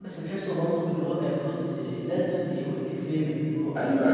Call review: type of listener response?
taking over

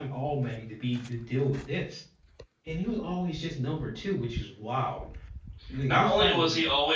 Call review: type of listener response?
taking over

